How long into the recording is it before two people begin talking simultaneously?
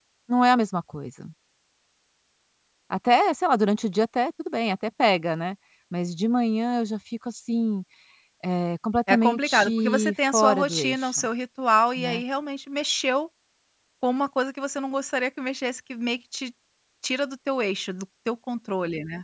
9 s

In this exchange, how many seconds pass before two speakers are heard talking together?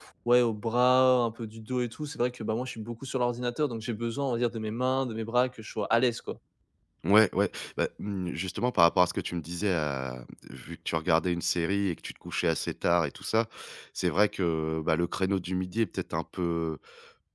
none

